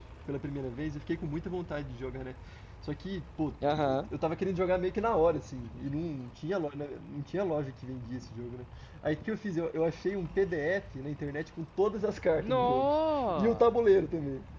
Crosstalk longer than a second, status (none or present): none